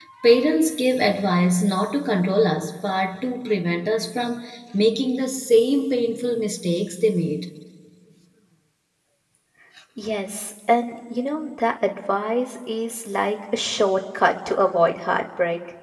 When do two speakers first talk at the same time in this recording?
none

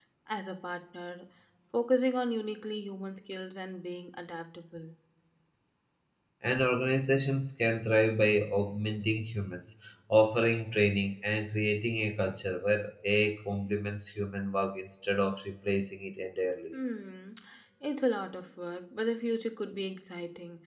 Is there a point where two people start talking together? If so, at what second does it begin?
none

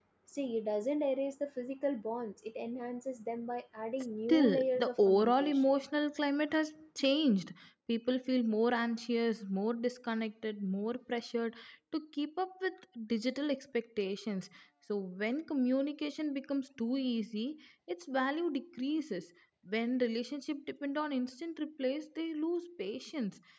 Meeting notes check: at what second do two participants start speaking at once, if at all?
4.3 s

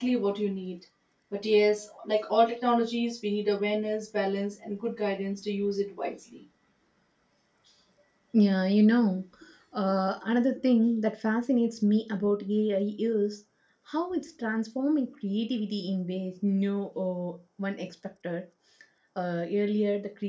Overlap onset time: none

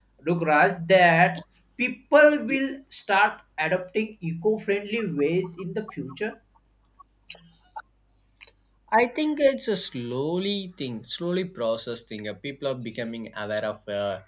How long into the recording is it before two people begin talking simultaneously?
none

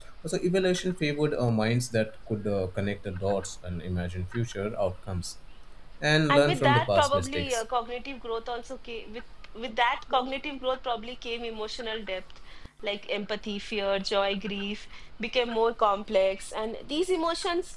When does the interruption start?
6.3 s

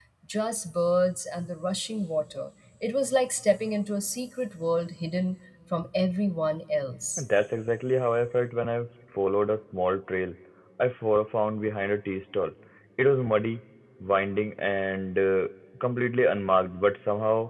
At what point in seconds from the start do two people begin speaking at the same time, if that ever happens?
none

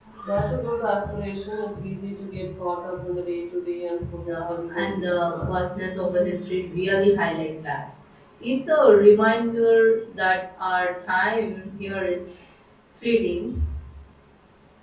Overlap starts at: 4.2 s

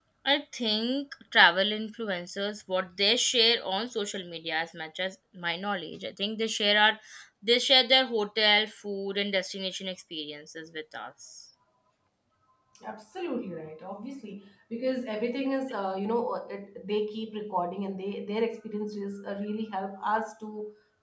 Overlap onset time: none

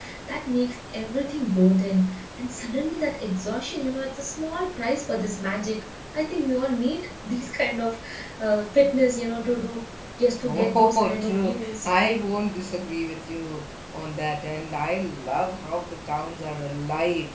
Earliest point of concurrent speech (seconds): 10.4 s

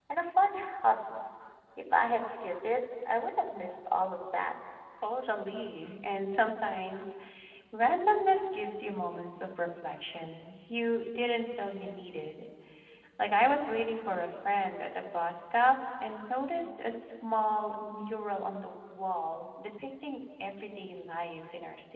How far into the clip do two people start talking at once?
none

